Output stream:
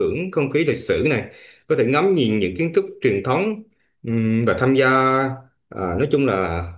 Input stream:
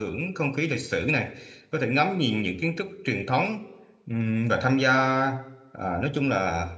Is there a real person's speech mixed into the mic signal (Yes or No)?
No